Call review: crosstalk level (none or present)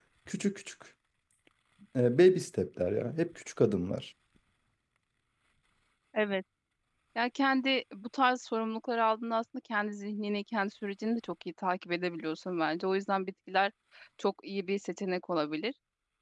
none